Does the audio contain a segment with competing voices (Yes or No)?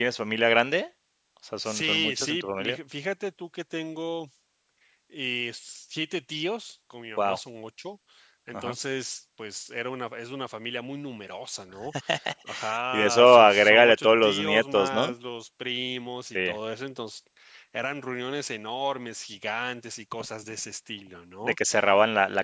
Yes